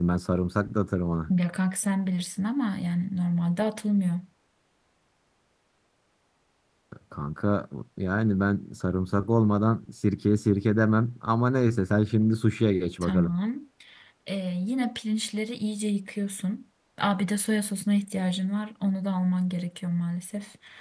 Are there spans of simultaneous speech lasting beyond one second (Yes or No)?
No